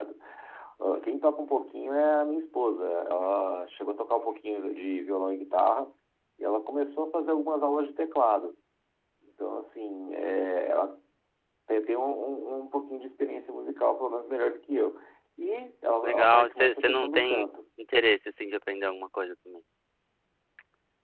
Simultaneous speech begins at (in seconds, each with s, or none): 16.0 s